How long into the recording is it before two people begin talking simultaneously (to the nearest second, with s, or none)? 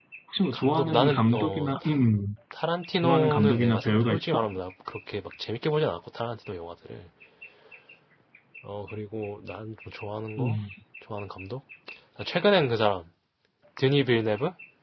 1 s